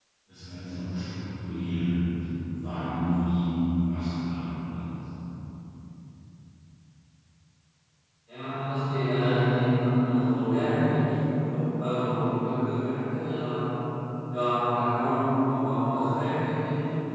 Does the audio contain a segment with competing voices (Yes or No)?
No